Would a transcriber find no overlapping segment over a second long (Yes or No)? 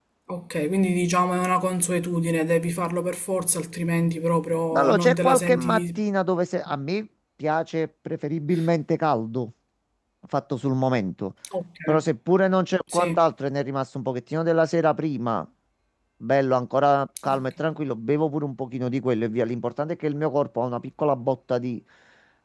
No